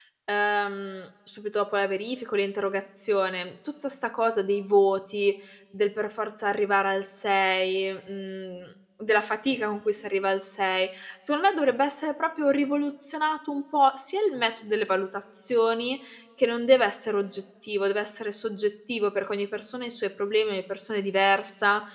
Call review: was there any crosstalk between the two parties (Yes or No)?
No